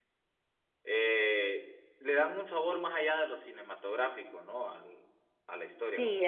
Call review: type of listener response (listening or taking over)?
taking over